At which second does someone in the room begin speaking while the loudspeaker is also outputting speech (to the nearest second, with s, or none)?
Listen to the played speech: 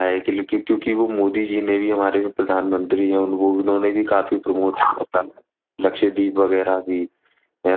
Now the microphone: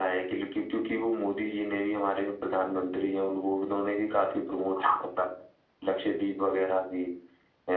none